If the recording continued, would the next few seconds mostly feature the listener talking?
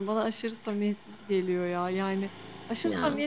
No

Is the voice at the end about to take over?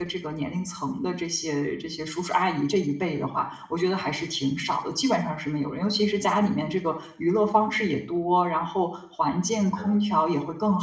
No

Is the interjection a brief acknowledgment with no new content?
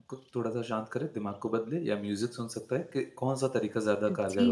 No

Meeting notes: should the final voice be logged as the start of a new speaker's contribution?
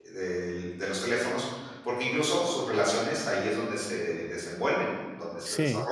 Yes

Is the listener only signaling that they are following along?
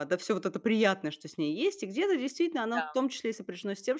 Yes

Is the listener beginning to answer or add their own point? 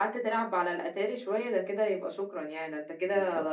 Yes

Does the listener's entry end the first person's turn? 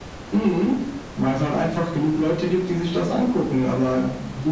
No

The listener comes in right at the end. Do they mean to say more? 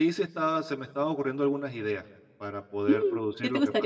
Yes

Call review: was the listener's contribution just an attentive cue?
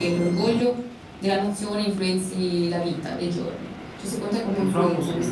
No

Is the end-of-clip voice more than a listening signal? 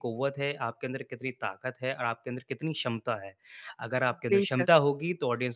No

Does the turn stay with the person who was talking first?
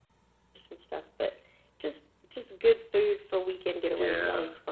No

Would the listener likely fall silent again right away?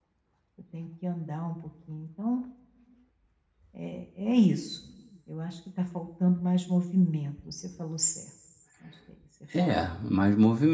No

